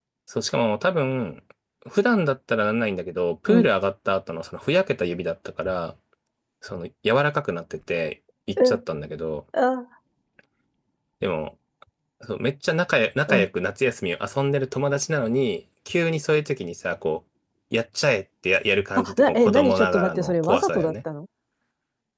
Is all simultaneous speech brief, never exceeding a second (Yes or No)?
No